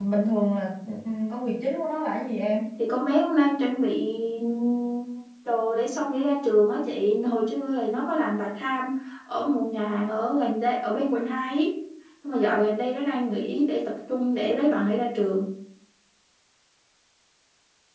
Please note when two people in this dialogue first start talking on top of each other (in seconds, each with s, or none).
none